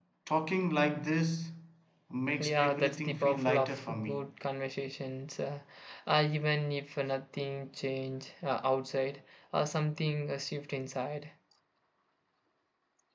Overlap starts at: 2.4 s

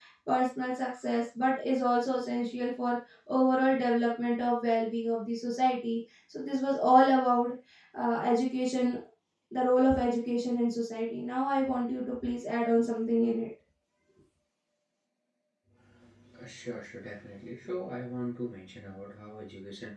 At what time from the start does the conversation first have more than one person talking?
none

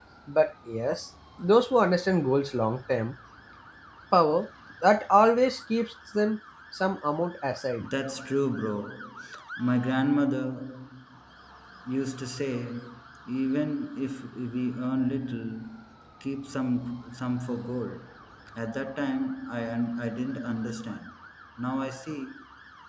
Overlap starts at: none

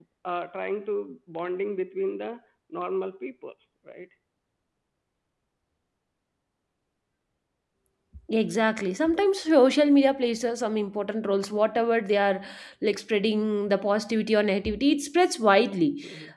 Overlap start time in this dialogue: none

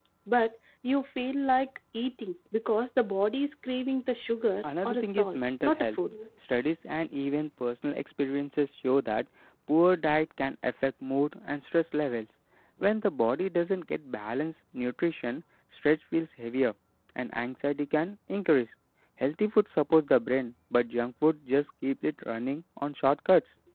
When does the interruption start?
4.6 s

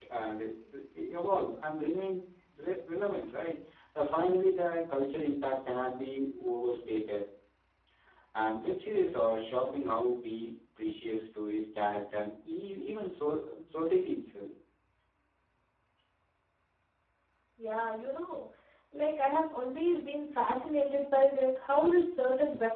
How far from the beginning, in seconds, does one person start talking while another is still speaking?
none

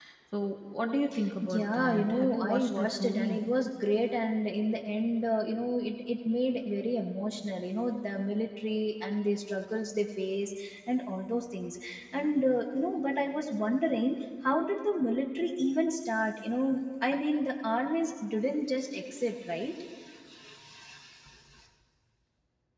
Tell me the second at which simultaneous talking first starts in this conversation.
1.4 s

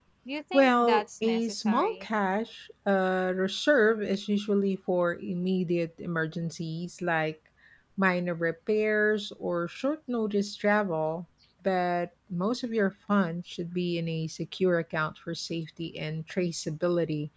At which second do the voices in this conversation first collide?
0.5 s

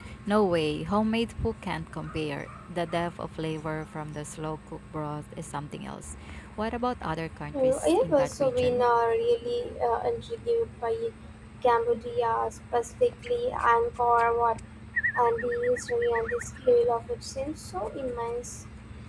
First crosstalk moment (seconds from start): 7.5 s

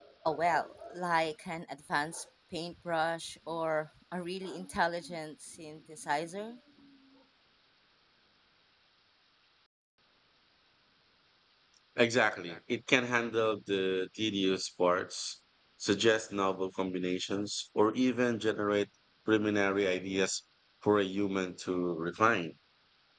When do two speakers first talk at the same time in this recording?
none

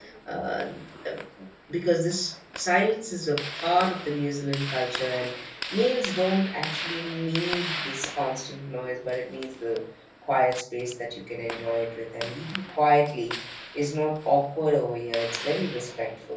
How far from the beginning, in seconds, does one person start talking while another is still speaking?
none

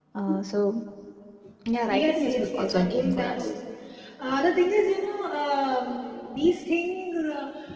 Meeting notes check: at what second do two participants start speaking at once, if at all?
1.9 s

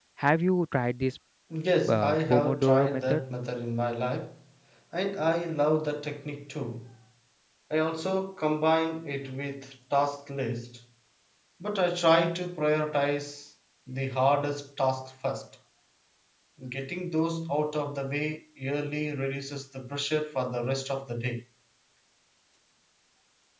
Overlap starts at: 1.9 s

